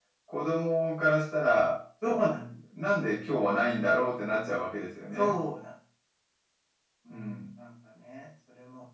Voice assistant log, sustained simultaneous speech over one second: none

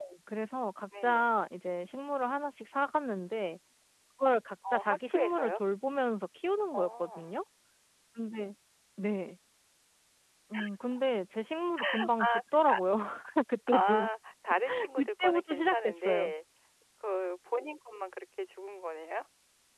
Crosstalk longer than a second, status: present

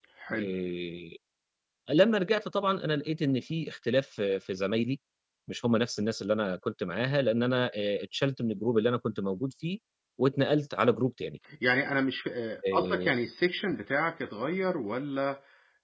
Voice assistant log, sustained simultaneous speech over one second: none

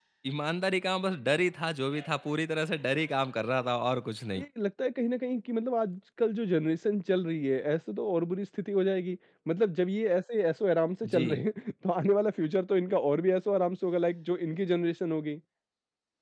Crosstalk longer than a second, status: none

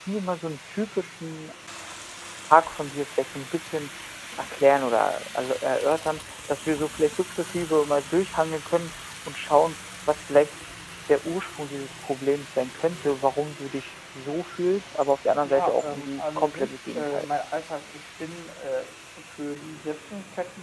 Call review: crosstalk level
present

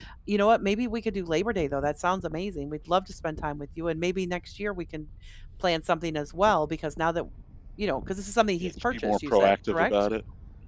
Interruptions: present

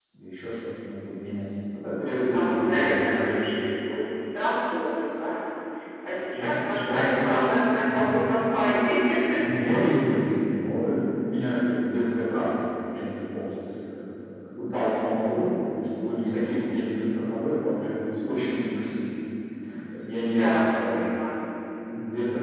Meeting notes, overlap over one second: present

